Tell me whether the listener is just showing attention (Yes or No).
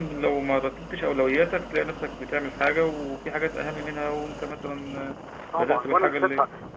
No